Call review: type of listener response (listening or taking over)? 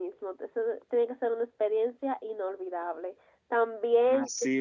listening